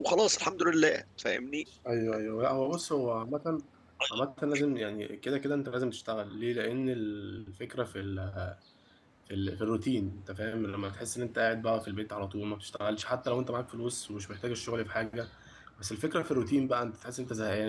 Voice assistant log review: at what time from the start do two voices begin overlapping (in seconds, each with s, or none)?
none